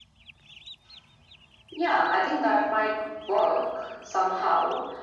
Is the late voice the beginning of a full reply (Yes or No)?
No